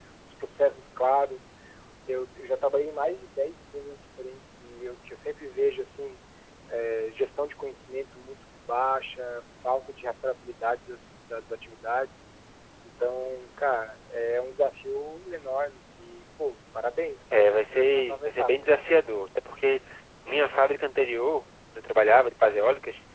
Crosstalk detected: Yes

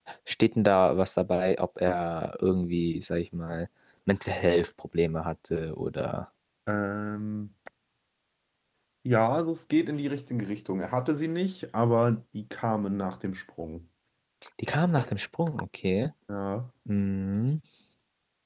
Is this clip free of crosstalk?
Yes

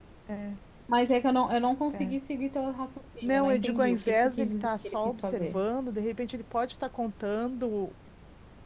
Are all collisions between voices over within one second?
No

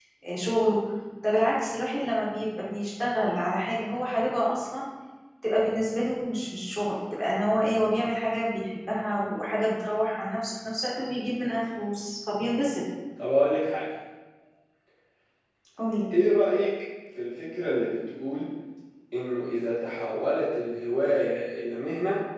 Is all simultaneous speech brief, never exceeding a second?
Yes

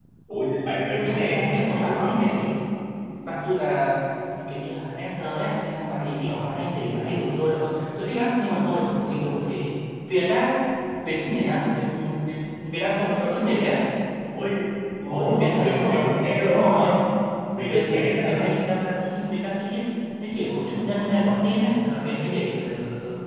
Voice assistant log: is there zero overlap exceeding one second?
No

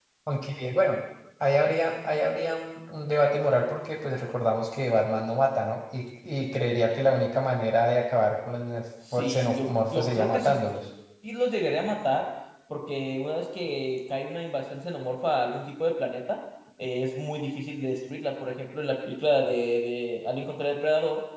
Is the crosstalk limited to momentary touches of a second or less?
No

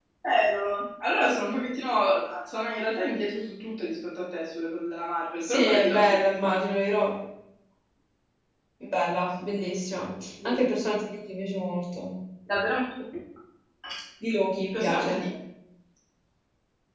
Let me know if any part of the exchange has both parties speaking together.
Yes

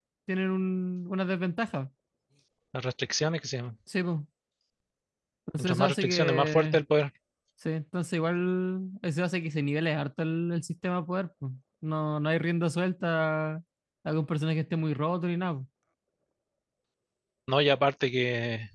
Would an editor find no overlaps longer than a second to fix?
No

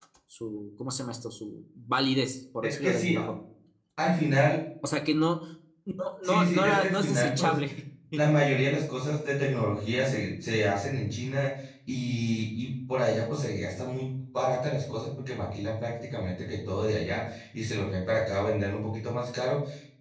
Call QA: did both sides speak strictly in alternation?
No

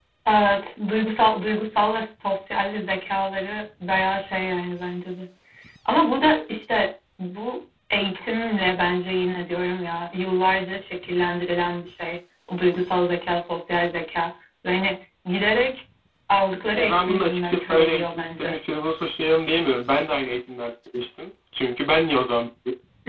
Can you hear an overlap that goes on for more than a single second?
Yes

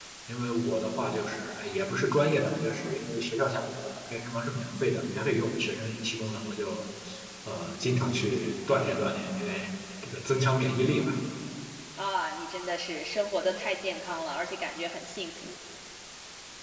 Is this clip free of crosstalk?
Yes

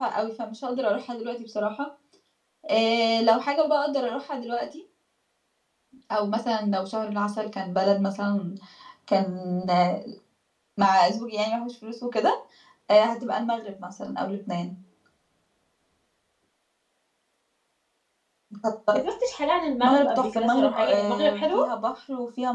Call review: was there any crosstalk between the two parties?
Yes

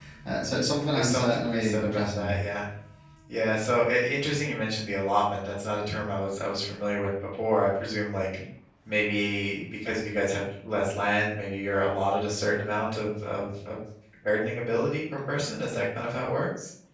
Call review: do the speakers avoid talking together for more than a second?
No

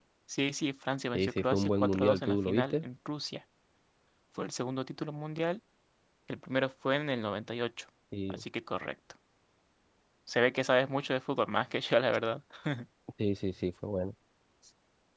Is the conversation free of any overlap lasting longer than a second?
No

